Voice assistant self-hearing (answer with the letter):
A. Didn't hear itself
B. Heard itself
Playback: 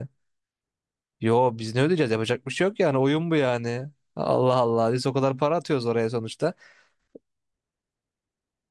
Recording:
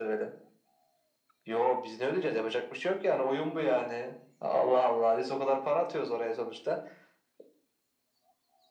B